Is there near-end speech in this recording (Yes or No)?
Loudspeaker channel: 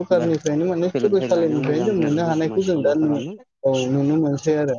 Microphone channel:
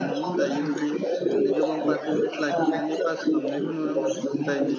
Yes